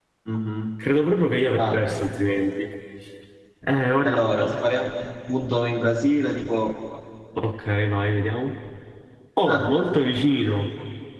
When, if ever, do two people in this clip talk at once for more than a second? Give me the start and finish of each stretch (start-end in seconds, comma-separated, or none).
none